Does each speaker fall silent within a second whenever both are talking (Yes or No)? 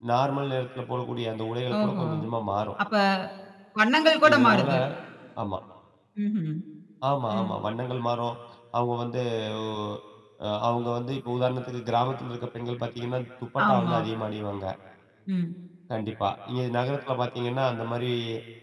Yes